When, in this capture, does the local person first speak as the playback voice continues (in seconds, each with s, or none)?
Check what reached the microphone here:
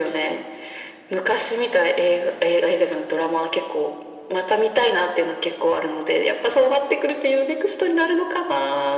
none